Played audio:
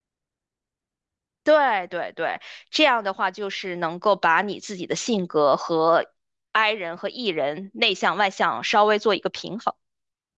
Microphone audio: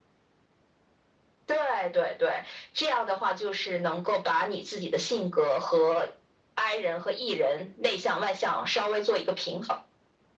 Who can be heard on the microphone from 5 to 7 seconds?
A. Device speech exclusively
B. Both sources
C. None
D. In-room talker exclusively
A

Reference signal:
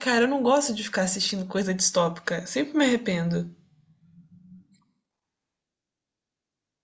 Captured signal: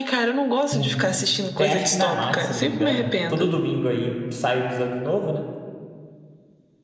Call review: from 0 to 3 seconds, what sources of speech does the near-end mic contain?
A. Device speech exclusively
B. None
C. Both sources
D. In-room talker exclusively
C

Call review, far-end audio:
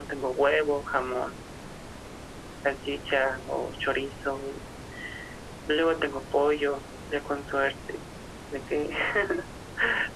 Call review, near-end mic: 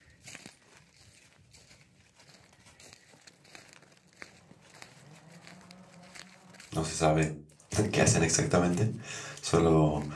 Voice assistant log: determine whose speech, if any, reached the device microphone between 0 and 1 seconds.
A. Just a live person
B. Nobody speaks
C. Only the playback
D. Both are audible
B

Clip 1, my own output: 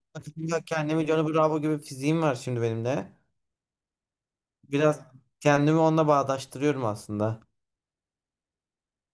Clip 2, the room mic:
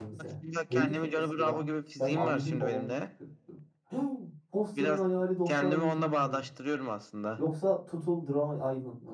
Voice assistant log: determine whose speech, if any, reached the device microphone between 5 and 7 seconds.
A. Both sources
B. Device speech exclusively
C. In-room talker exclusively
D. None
A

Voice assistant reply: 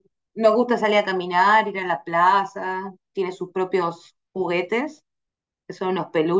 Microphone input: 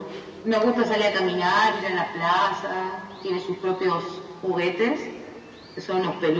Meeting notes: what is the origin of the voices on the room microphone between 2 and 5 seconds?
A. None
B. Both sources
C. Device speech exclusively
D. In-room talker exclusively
C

